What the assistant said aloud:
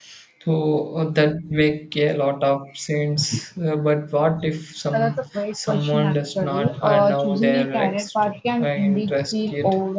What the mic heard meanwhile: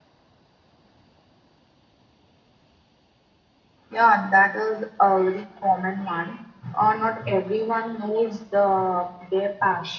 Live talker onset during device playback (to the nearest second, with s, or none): 4 s